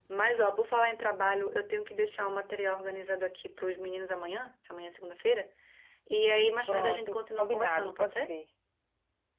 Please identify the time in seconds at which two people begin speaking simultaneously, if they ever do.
6.7 s

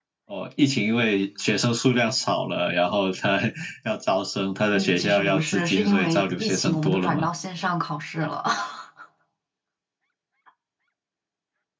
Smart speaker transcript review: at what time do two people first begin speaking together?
4.7 s

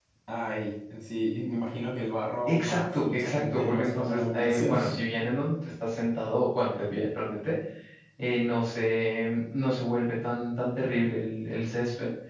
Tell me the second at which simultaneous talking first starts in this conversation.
2.5 s

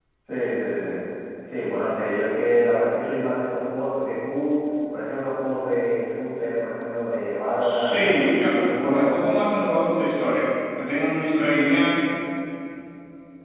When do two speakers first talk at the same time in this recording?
7.6 s

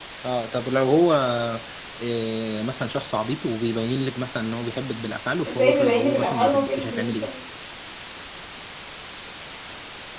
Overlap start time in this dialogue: 5.5 s

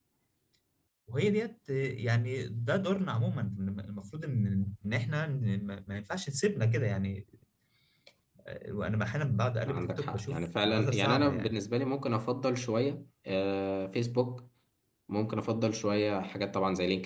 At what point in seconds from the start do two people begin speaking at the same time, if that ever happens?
9.6 s

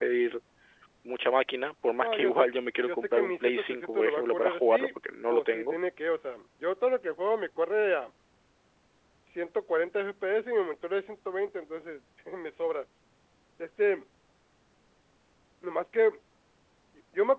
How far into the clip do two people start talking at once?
2.0 s

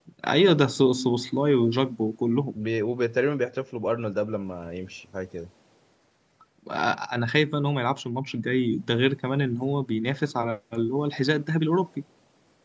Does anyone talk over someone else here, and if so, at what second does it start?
none

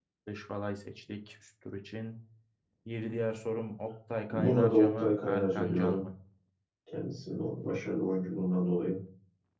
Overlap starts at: 4.3 s

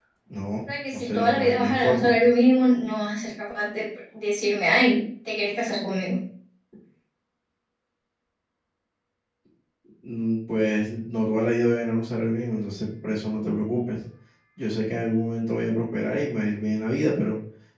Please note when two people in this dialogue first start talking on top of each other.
0.9 s

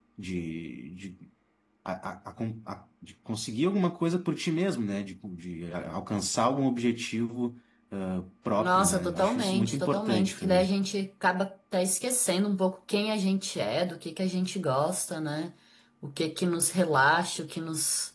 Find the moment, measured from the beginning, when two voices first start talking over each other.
8.6 s

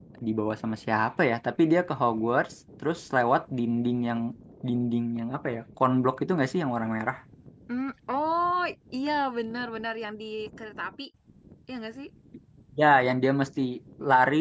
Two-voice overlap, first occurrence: none

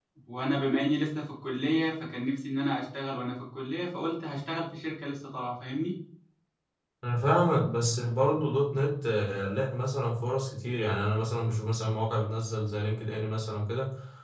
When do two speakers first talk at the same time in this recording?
none

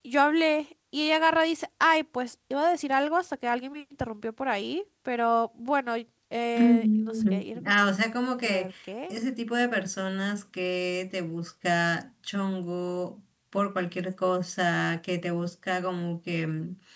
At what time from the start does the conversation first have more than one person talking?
6.6 s

